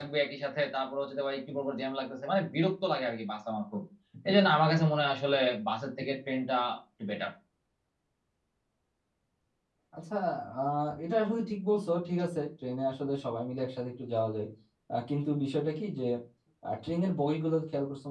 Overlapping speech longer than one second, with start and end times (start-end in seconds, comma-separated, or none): none